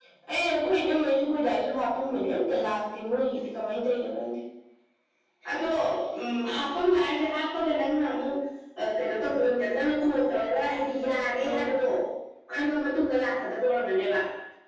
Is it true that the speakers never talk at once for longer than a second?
Yes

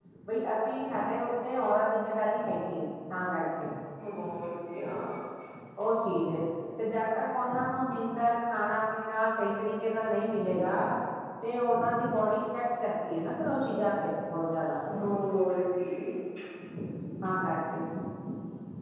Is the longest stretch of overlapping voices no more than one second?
Yes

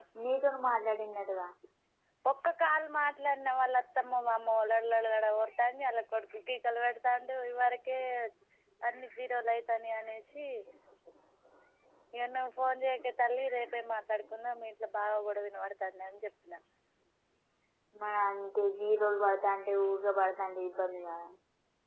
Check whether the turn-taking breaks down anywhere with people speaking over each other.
No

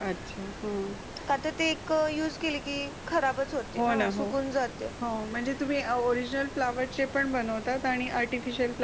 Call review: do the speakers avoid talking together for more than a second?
Yes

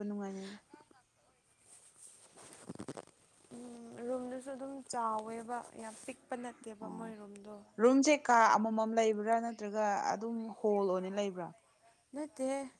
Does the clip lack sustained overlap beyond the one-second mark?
Yes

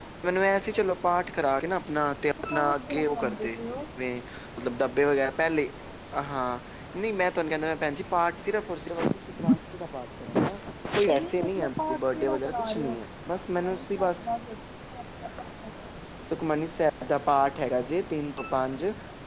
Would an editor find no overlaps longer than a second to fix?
No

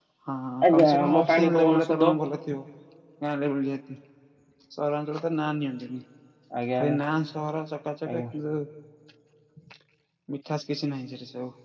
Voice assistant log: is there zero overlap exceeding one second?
No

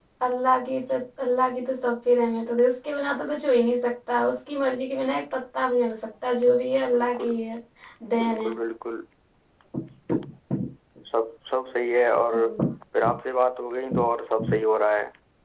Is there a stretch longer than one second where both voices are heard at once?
No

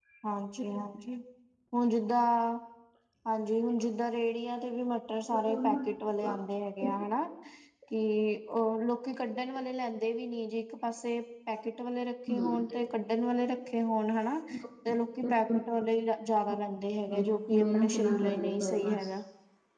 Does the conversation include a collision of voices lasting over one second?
Yes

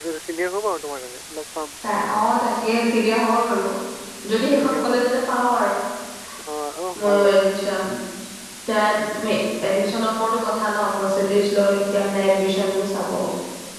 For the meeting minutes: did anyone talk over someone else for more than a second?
No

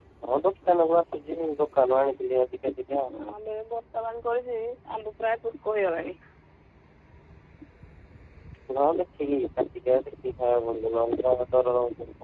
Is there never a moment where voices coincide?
Yes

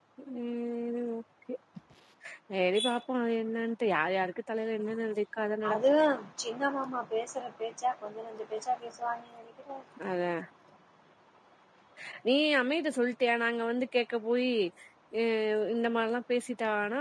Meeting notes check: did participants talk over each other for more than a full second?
No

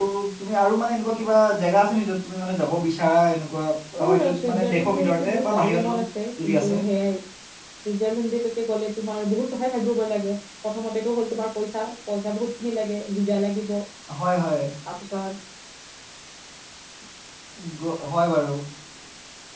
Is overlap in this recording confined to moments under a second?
No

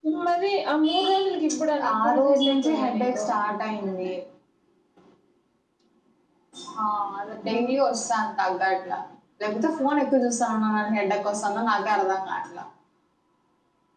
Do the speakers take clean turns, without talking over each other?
No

